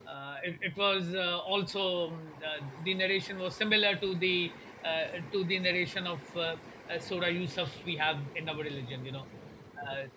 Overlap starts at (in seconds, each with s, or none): none